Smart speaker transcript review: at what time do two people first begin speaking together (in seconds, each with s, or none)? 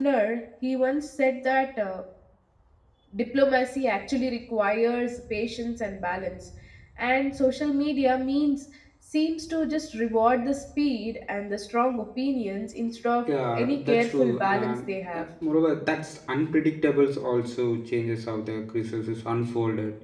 13.3 s